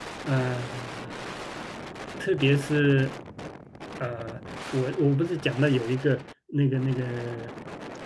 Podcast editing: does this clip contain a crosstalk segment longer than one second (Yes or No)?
No